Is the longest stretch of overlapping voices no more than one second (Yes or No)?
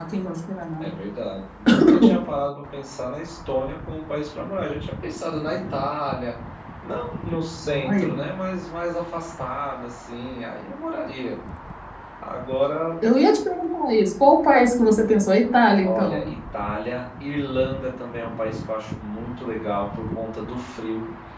Yes